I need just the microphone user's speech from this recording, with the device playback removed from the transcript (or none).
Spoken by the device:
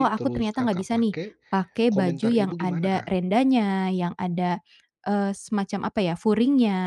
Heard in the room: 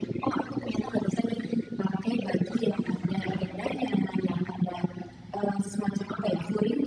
none